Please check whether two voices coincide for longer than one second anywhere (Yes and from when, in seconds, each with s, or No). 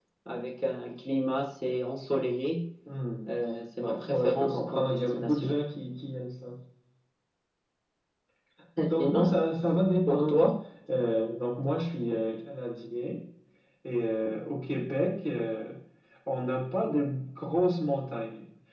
Yes, from 3.8 s